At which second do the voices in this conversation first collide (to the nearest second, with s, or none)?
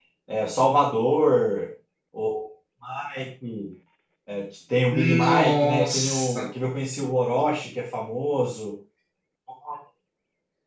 5 s